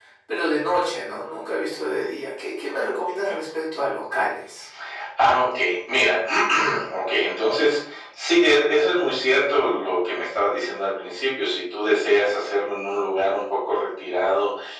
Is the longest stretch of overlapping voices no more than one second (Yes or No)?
Yes